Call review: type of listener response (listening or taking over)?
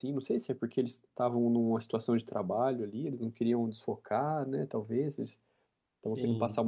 listening